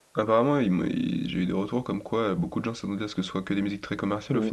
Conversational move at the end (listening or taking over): taking over